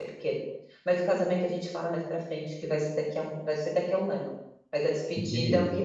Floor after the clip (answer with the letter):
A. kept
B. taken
A